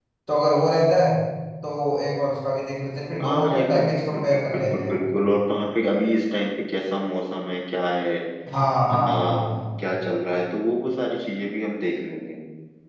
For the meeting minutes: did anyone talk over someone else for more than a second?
Yes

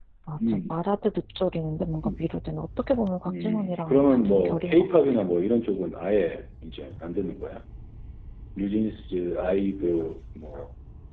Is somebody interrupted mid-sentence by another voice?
Yes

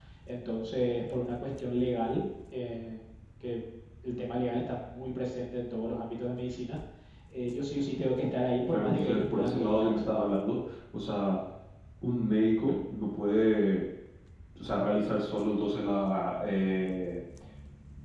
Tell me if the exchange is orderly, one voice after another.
No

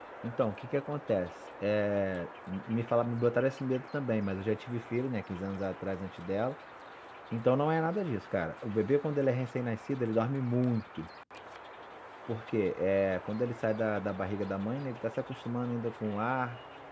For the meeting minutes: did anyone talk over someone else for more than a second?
No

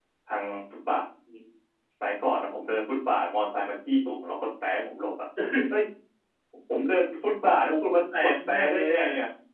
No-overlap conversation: No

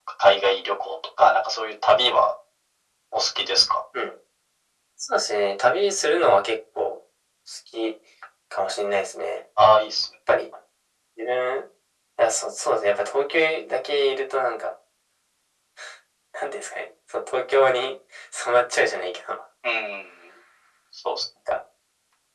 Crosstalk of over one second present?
No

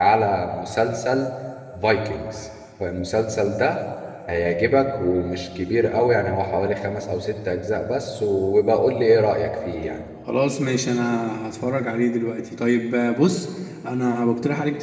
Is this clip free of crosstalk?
Yes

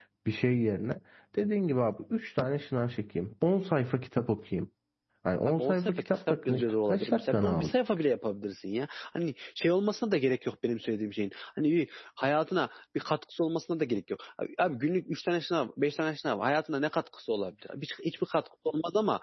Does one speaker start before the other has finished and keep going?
Yes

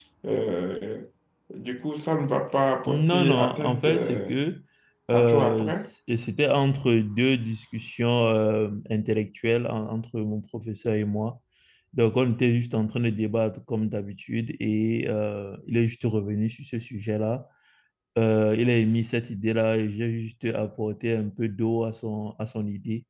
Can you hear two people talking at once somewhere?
Yes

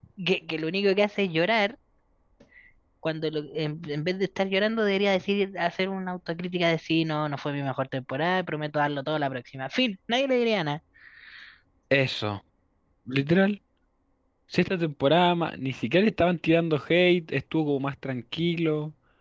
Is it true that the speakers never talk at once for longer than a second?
Yes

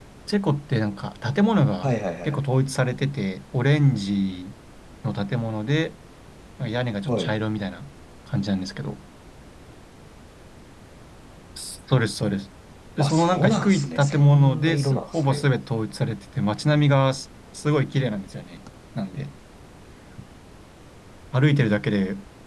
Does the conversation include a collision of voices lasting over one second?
Yes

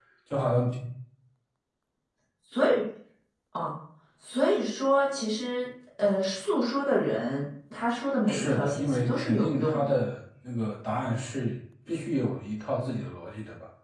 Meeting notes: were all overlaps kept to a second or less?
No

